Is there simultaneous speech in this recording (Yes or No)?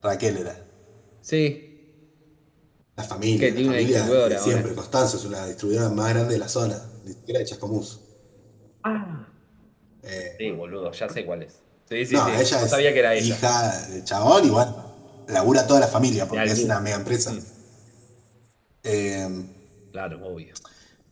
Yes